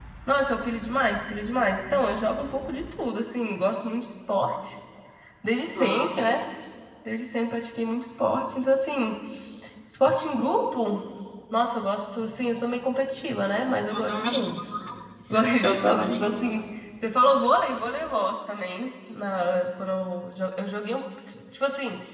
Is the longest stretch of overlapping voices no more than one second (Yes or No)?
Yes